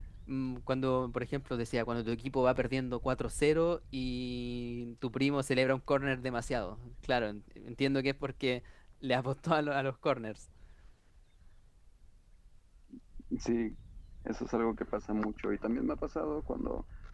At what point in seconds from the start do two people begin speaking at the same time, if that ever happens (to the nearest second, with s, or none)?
none